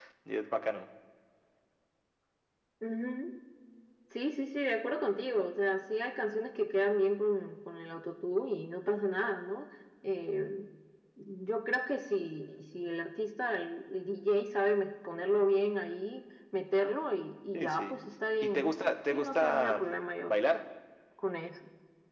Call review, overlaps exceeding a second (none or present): present